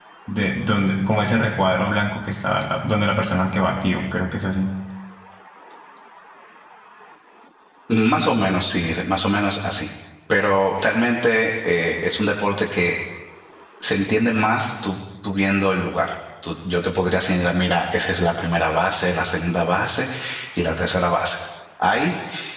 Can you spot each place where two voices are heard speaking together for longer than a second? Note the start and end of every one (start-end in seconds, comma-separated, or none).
none